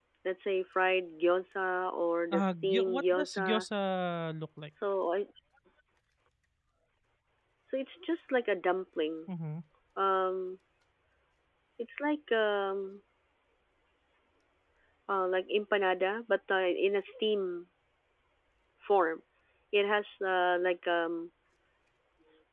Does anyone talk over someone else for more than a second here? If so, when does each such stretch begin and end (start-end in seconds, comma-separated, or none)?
2.3-3.6